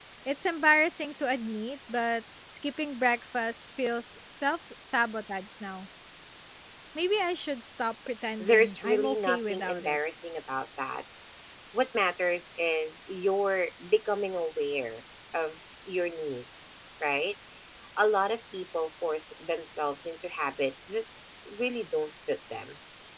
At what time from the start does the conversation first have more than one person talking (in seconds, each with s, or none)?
8.4 s